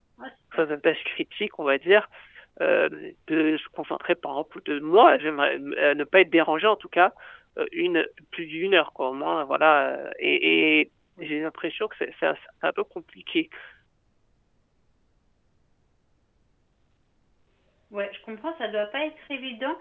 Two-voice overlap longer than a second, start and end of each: none

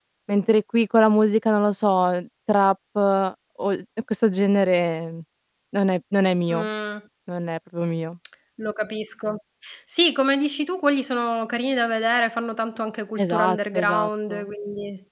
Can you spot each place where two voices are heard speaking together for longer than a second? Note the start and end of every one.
13.2-14.5

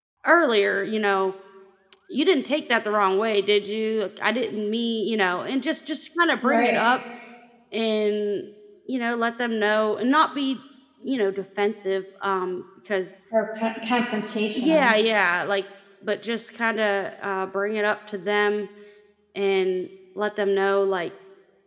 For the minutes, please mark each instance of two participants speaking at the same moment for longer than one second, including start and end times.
none

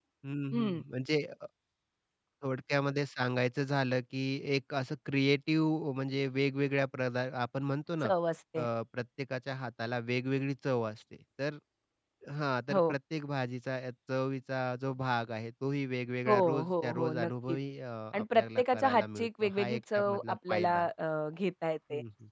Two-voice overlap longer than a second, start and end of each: 16.3-17.6, 18.1-20.9

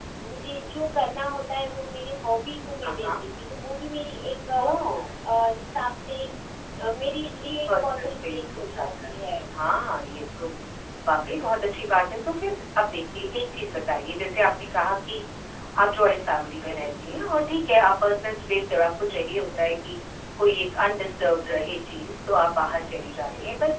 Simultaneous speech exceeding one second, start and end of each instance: 7.8-9.1

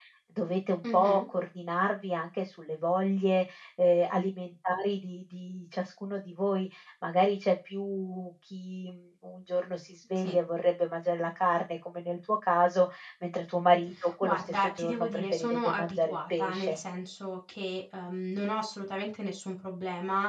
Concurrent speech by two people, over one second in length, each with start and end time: 14.2-16.8

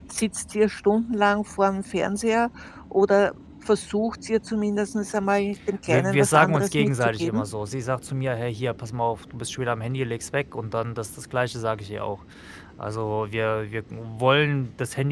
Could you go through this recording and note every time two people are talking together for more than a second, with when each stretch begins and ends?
5.9-7.4

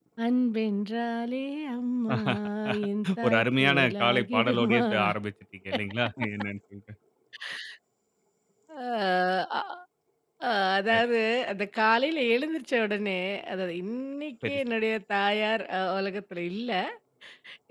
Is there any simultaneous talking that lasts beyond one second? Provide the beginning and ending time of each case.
3.2-4.8

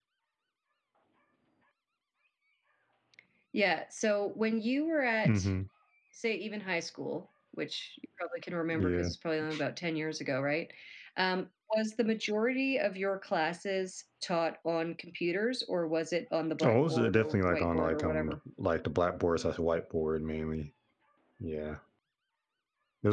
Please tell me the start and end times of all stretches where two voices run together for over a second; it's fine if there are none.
16.6-18.4

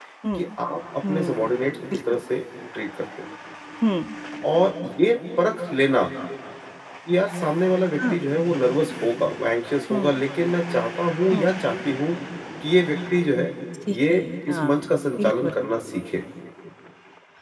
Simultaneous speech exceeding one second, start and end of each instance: 13.9-15.5

